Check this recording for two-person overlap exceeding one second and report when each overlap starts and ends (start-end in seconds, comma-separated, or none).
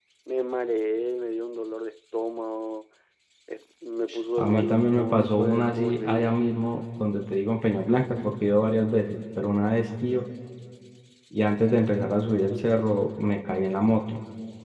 4.4-6.3